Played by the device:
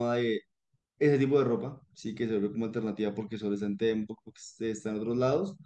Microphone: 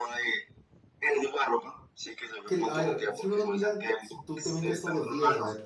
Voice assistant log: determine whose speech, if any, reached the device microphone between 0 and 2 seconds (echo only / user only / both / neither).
echo only